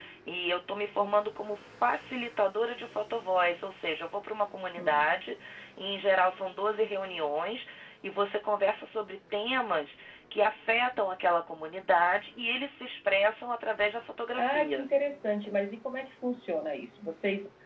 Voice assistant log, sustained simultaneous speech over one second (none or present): none